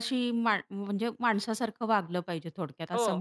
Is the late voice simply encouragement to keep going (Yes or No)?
No